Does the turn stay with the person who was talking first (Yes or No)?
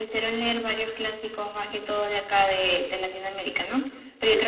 Yes